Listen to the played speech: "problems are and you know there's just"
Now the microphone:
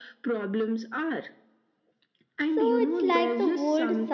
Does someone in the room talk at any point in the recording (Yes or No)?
Yes